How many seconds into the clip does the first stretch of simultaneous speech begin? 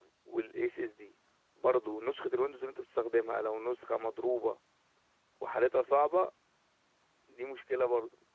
none

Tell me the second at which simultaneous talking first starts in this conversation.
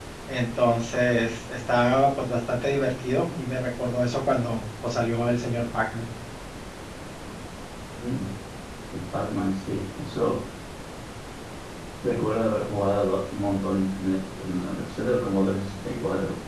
none

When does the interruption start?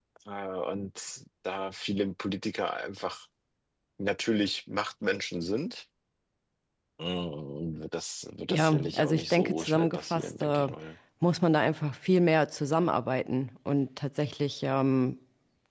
8.5 s

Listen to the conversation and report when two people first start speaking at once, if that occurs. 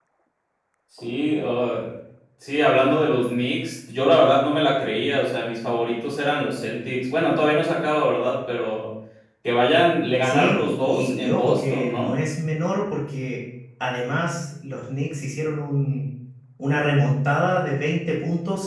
10.2 s

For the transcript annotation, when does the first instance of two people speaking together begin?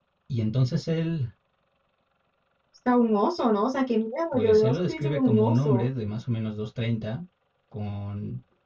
4.3 s

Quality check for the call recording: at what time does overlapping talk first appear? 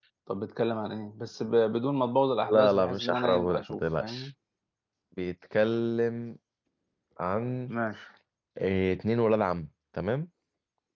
2.4 s

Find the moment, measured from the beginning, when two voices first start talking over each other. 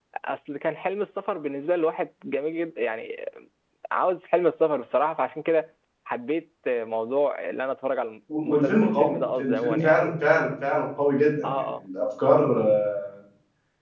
8.4 s

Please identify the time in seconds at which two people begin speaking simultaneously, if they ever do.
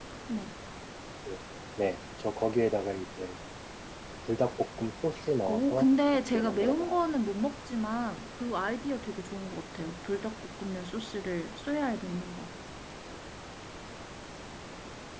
5.5 s

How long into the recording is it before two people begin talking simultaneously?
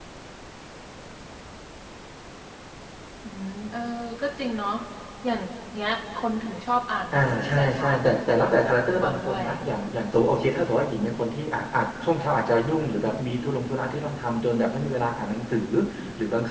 7.2 s

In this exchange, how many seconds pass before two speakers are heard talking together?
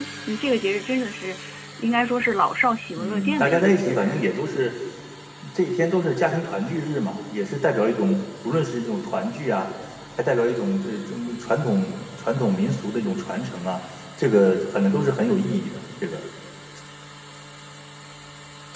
3.0 s

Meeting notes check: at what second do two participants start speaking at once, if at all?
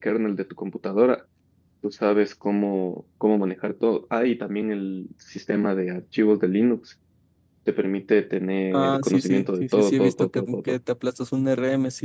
8.7 s

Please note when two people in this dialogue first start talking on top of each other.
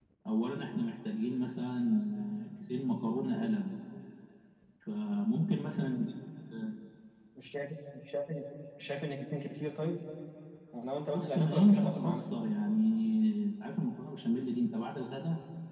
11.0 s

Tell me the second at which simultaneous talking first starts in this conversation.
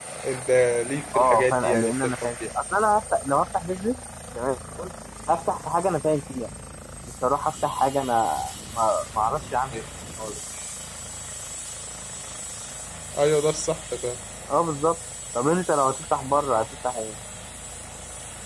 1.1 s

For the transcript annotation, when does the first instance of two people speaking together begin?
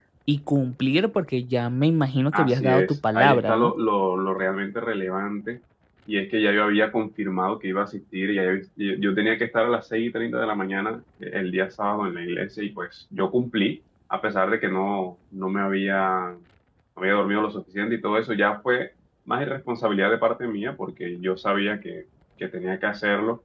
2.3 s

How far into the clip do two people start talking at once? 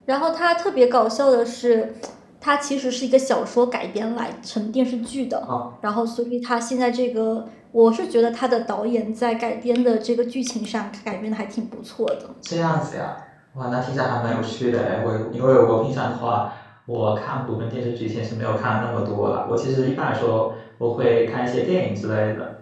none

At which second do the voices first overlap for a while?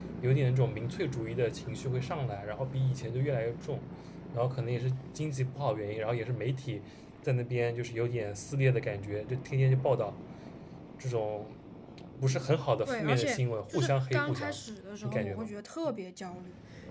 12.9 s

